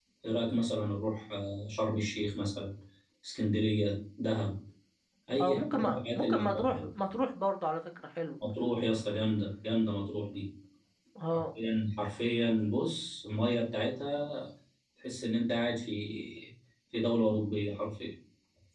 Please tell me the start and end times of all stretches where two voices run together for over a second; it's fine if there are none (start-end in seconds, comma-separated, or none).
5.4-6.9